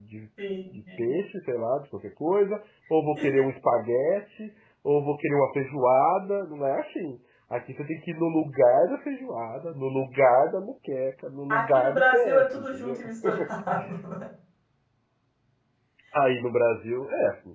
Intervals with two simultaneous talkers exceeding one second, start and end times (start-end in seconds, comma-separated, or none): 11.5-13.0